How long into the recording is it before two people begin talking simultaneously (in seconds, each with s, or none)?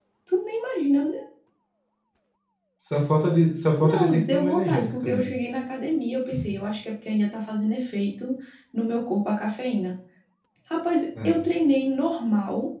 3.8 s